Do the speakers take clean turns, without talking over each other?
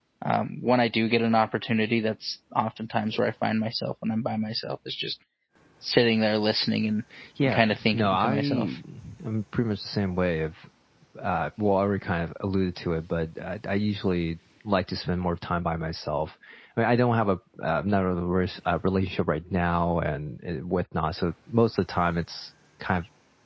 No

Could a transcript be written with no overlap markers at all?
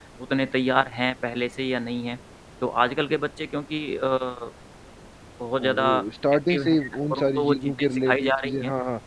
No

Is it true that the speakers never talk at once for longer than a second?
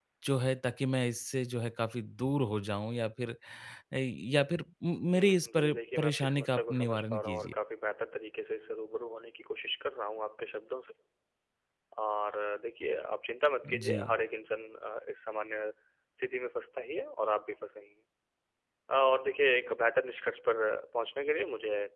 No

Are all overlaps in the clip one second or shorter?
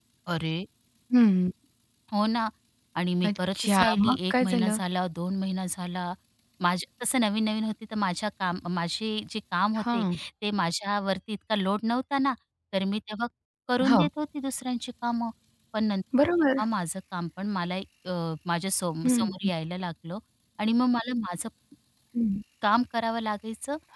No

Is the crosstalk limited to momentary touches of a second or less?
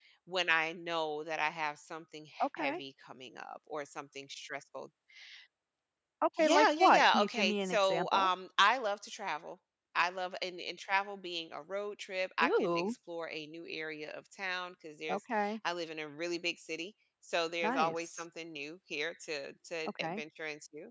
No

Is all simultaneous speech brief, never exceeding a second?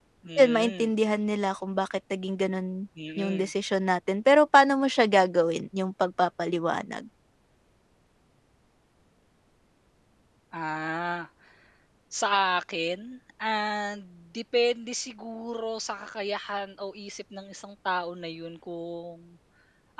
Yes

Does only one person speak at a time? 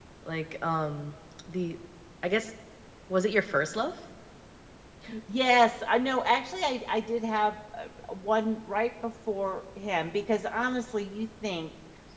Yes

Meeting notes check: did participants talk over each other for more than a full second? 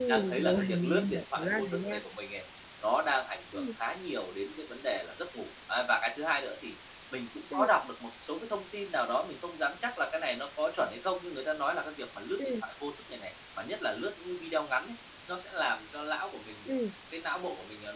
Yes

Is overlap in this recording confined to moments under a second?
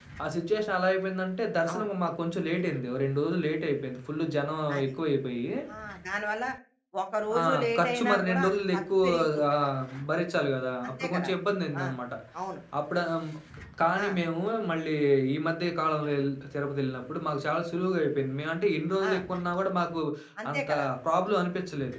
No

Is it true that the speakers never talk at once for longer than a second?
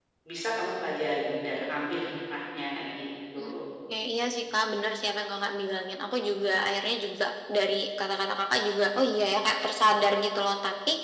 Yes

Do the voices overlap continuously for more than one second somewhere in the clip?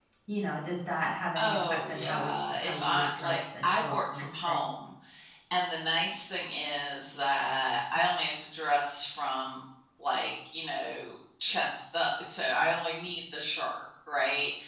Yes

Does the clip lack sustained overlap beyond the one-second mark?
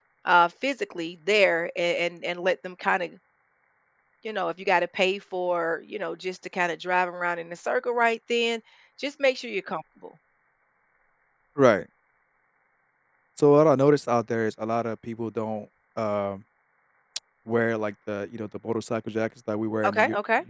Yes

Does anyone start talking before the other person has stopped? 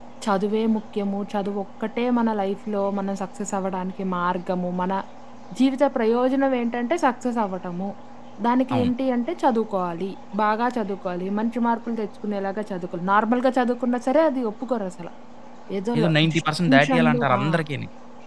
Yes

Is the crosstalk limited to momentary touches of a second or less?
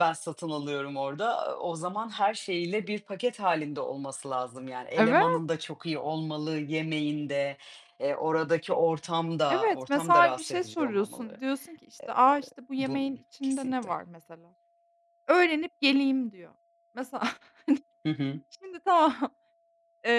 No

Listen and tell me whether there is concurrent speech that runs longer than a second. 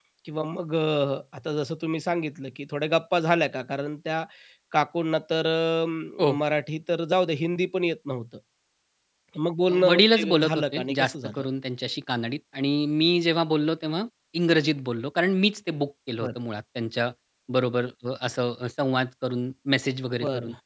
Yes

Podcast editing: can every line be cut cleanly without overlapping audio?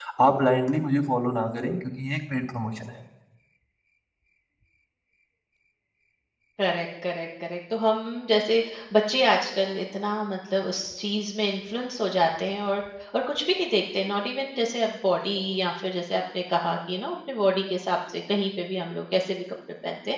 Yes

